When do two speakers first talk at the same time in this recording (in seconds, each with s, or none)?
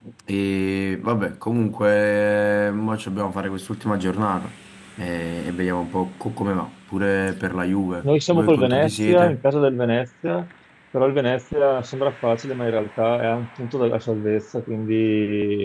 8.0 s